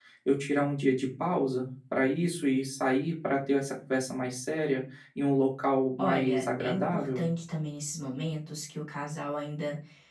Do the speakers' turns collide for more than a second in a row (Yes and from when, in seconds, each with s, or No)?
Yes, from 6.0 s